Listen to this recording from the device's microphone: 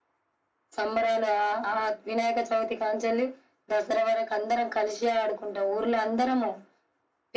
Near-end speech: none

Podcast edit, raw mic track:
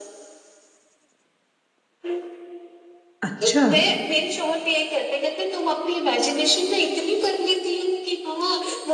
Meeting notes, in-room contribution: present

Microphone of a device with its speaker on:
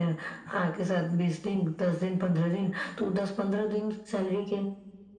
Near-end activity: none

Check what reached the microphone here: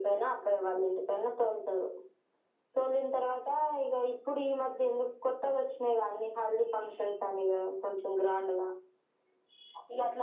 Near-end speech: none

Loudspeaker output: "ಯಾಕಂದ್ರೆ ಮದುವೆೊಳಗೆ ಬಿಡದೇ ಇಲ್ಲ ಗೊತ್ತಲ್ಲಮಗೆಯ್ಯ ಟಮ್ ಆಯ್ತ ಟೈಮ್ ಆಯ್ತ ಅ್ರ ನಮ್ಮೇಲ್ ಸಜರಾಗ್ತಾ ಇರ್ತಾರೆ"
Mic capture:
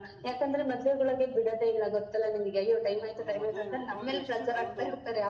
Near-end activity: present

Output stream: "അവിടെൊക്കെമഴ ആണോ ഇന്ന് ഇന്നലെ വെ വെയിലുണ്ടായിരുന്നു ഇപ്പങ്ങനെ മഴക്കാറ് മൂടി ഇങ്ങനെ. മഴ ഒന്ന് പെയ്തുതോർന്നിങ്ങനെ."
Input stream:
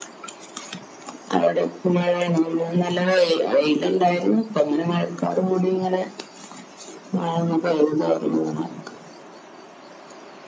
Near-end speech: none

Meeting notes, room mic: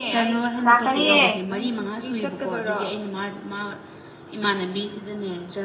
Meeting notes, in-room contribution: present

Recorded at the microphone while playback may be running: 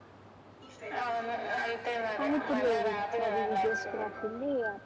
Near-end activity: present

